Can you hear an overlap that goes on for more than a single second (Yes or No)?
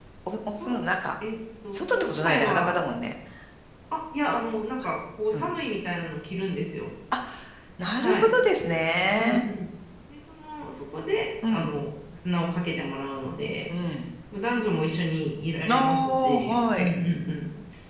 Yes